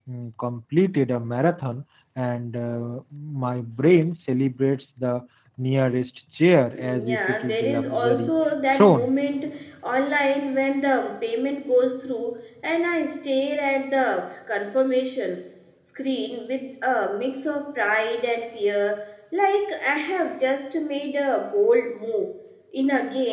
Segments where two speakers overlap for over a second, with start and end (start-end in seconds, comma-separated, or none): 6.8-8.3